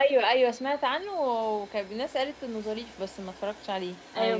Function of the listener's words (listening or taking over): taking over